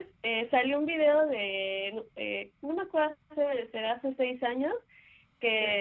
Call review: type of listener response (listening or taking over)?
listening